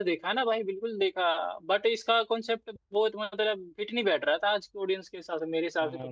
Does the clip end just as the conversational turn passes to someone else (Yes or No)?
Yes